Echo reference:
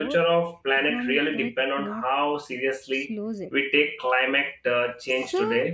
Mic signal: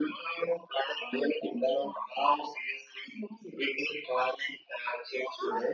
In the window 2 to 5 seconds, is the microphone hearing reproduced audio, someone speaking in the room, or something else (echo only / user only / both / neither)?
echo only